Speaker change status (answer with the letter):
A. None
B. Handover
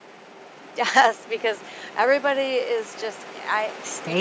B